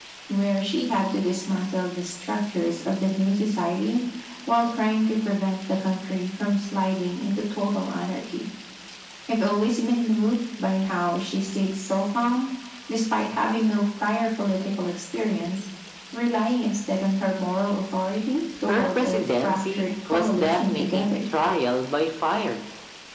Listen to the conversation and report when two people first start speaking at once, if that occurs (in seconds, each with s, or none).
18.7 s